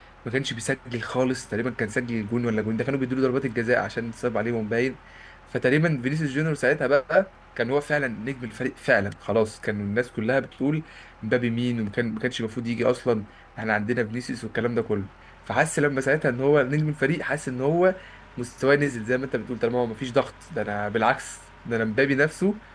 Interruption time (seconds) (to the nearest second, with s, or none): none